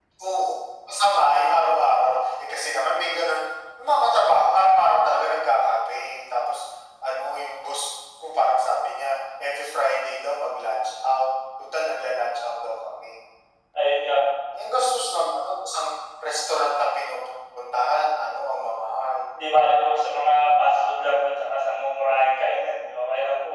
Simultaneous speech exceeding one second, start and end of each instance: none

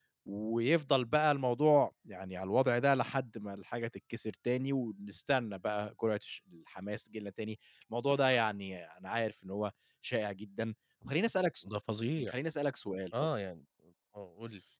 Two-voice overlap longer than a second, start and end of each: none

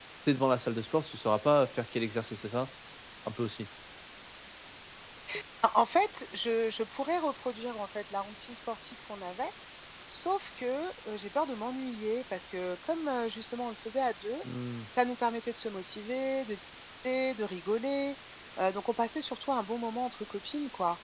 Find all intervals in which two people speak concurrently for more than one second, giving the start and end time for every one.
none

